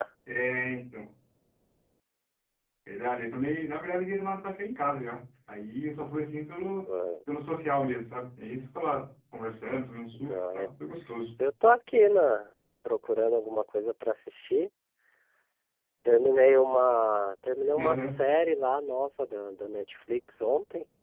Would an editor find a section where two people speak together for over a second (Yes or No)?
No